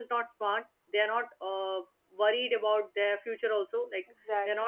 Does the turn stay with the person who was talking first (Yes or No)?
Yes